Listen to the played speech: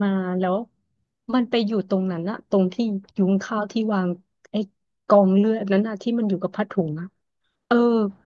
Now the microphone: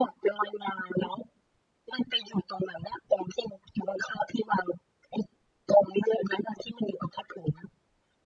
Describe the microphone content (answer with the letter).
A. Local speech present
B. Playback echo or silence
B